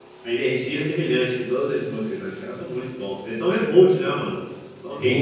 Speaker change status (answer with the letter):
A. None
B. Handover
B